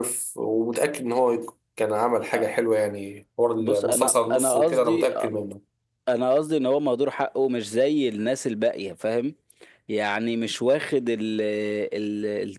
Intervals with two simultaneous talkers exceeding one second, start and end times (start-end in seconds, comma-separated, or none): 3.6-5.1